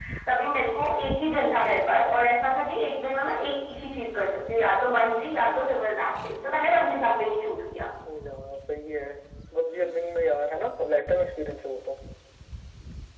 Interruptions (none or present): none